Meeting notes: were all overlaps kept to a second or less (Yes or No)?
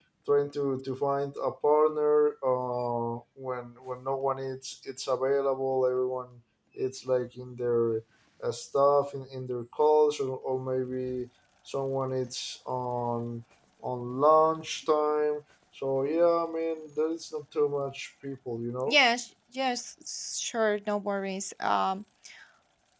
Yes